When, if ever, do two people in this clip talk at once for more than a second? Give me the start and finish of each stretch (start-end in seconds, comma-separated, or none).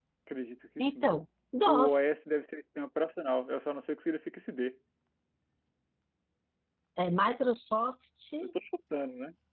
none